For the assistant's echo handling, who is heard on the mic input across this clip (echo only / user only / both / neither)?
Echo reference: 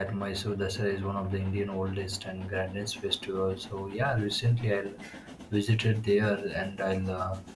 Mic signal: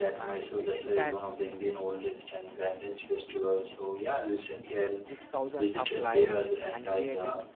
both